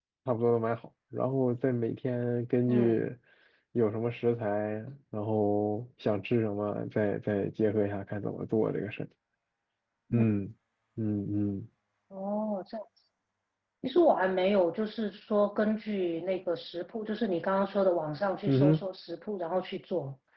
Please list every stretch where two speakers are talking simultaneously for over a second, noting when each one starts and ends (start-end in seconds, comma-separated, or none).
none